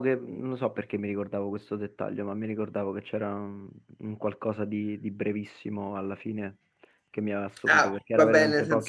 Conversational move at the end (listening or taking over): taking over